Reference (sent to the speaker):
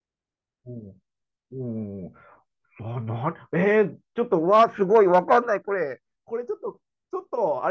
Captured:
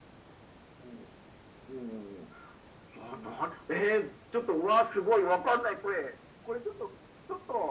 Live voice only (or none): none